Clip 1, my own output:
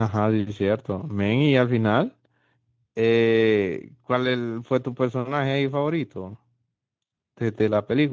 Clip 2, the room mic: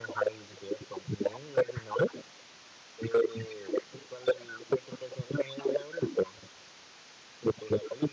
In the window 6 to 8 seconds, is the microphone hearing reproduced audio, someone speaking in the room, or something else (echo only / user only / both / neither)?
echo only